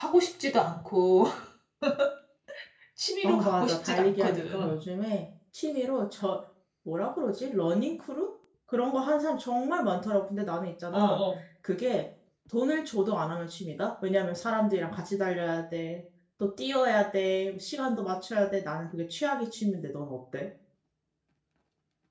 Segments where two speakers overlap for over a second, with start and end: 3.2-4.7

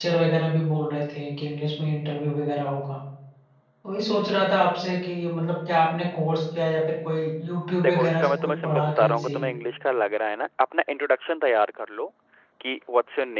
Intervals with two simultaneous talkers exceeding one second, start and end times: 7.8-9.4

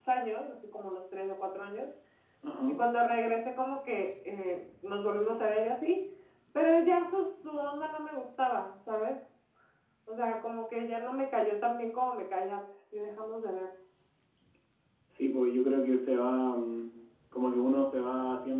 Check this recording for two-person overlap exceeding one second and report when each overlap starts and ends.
none

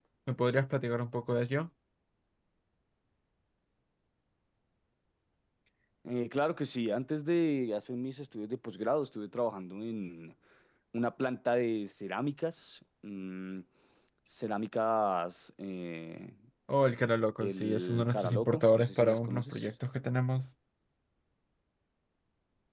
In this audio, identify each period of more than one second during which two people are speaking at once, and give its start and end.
17.4-19.7

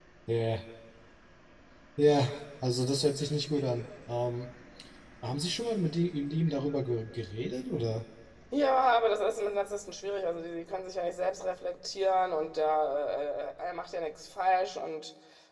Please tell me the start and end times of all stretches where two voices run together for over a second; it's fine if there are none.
none

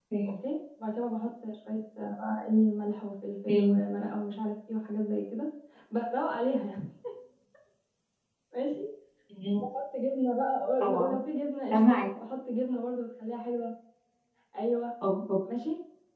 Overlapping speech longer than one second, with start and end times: none

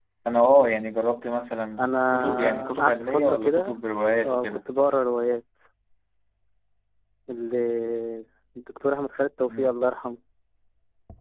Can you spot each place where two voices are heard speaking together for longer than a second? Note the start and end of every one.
1.8-3.8

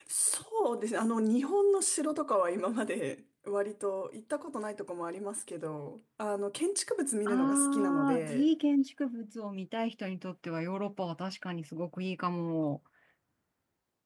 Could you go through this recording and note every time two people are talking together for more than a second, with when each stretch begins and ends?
7.3-8.5

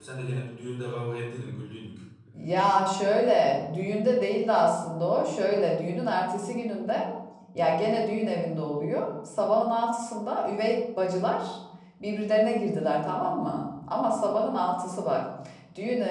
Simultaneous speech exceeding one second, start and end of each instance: none

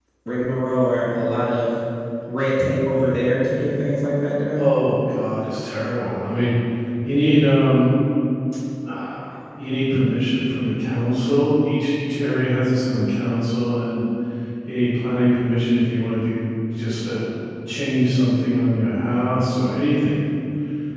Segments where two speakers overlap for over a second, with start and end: none

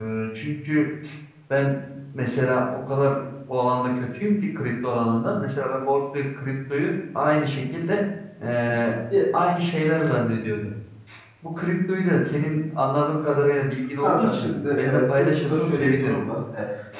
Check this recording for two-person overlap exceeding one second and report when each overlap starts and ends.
14.0-16.1

